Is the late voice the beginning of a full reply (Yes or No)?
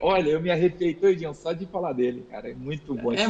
Yes